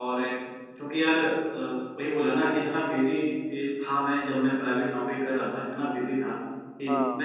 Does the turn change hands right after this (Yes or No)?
No